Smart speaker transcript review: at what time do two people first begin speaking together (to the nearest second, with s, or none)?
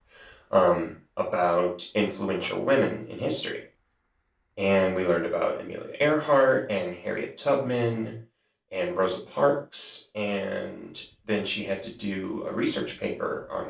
none